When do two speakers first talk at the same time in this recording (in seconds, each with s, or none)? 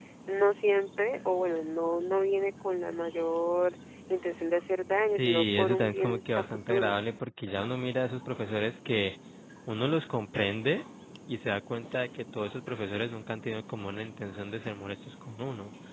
5.2 s